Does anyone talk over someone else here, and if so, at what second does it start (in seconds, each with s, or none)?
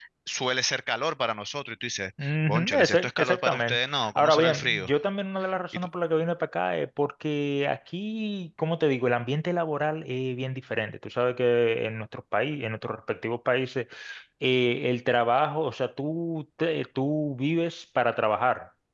2.2 s